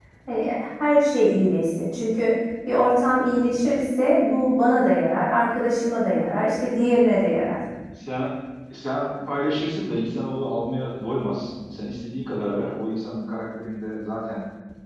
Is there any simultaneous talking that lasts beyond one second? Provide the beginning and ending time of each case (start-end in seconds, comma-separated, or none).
none